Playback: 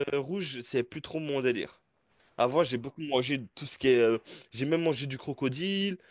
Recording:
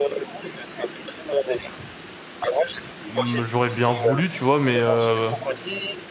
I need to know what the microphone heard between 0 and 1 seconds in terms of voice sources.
echo only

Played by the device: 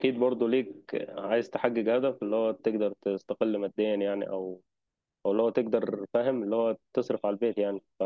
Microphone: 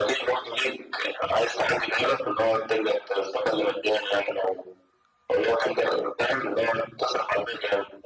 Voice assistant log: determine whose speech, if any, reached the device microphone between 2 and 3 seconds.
echo only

